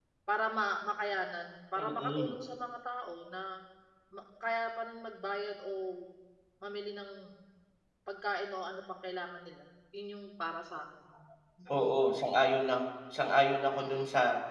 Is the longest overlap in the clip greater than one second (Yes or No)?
No